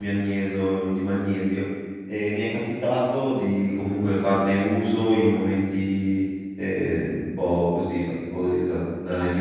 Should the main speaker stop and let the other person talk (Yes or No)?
No